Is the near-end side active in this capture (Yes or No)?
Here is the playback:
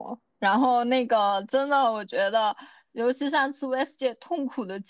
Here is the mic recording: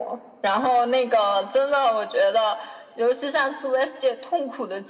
No